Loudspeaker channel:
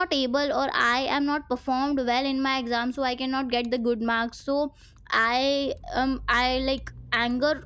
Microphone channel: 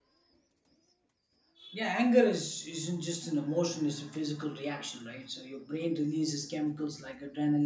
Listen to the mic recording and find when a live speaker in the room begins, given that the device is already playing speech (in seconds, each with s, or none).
1.7 s